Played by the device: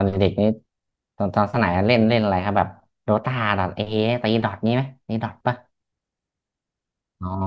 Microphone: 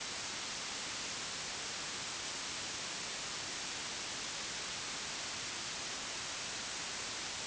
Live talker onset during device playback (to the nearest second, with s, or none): none